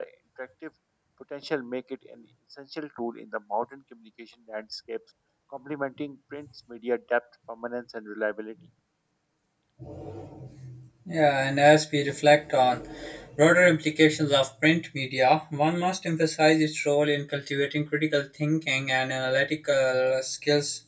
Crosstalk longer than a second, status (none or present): none